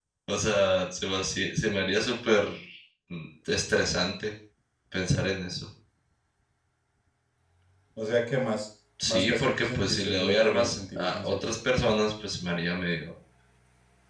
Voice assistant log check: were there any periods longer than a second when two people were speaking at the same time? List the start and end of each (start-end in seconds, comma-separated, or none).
9.1-11.6